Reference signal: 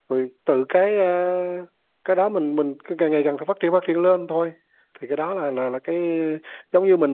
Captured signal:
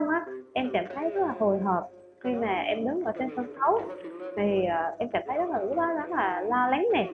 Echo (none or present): present